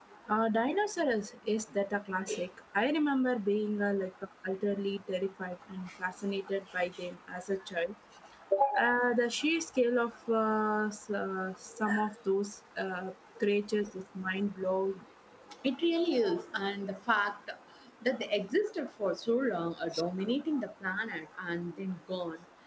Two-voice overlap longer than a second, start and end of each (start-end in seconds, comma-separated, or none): none